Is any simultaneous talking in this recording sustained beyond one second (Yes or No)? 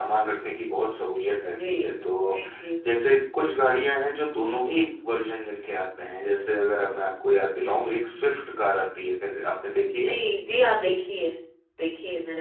No